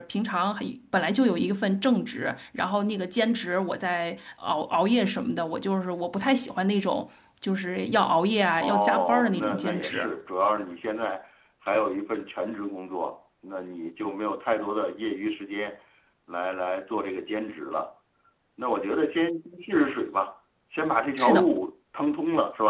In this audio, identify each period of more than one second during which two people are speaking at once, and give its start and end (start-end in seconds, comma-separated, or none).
8.6-10.1